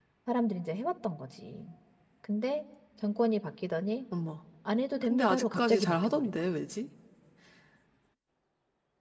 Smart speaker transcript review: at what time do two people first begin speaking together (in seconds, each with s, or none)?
5.0 s